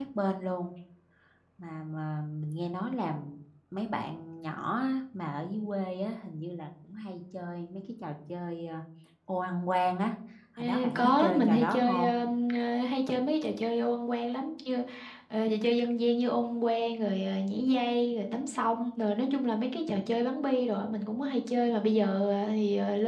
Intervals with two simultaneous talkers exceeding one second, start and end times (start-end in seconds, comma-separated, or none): 10.6-12.1